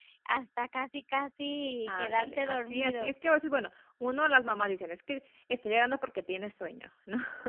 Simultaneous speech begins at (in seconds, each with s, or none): 1.9 s